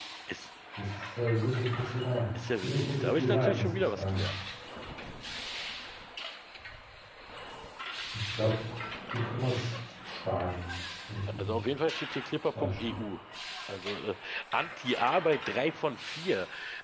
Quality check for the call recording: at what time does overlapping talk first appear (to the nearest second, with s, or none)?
3 s